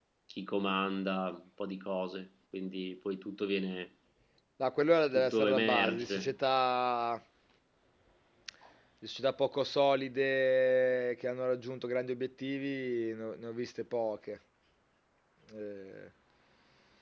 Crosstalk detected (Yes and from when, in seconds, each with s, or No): Yes, from 5.1 s